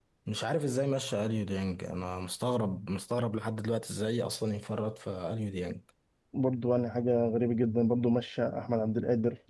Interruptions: none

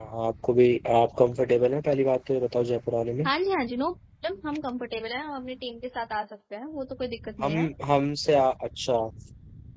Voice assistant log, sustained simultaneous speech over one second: none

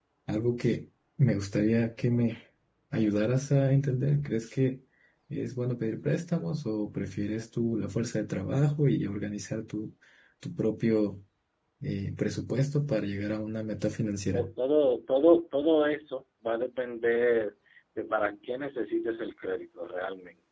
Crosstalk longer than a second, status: none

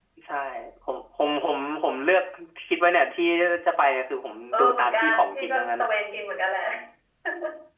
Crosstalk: present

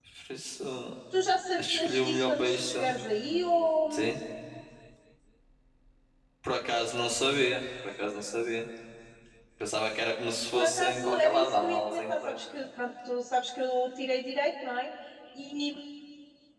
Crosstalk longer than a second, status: present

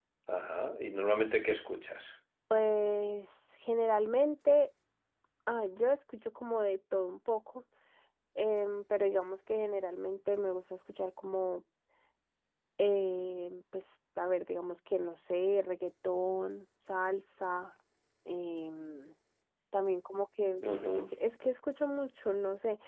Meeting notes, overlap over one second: none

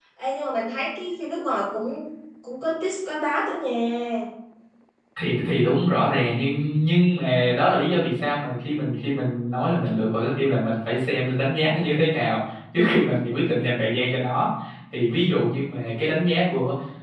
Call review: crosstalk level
none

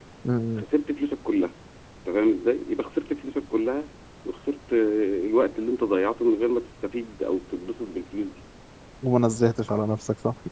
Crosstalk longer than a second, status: none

